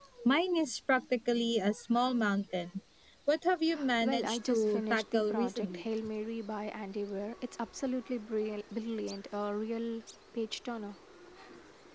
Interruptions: present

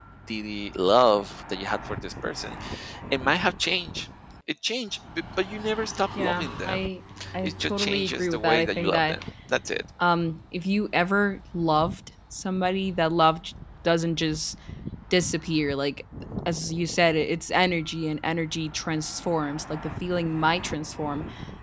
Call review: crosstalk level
present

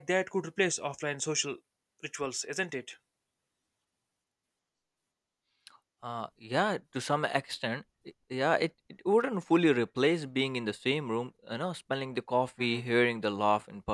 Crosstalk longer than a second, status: none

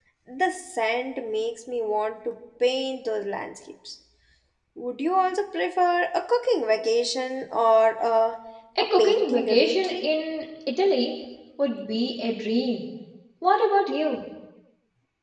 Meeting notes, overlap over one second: present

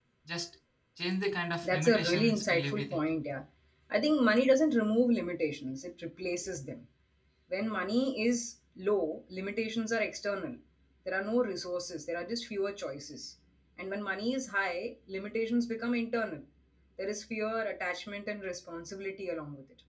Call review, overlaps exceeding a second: present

